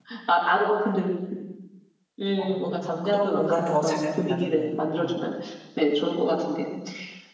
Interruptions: present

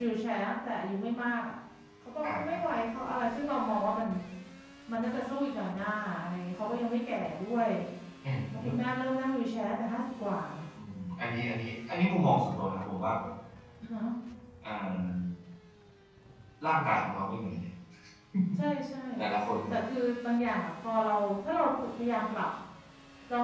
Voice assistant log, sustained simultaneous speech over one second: none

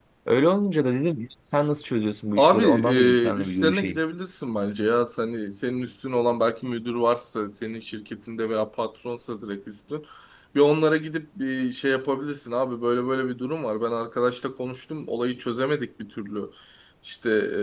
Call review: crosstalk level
present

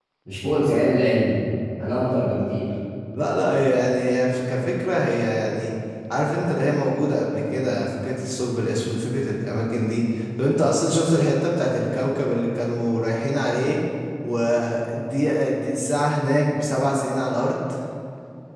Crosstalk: none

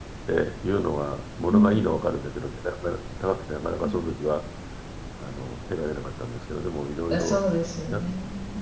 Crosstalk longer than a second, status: none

